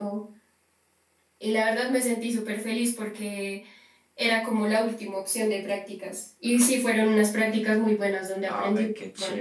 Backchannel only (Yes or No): No